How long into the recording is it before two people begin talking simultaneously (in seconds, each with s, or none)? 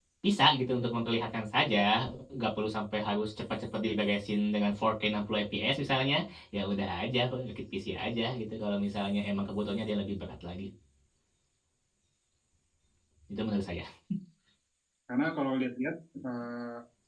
none